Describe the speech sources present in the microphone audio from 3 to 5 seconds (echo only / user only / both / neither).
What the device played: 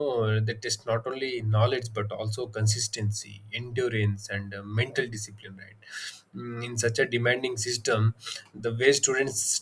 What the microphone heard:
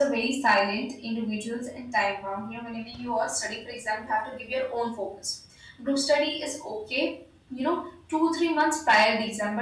user only